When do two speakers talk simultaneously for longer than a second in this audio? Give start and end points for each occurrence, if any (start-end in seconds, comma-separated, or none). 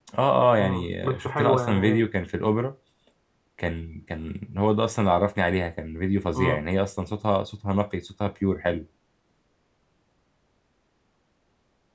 0.6-2.0